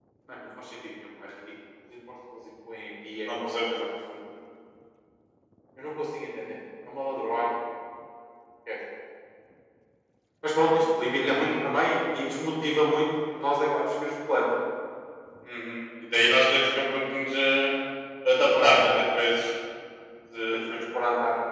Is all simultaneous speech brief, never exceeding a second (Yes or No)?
Yes